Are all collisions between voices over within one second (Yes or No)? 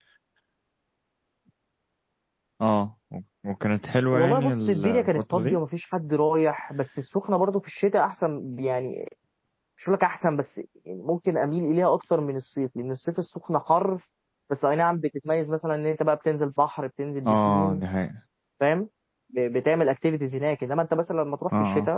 No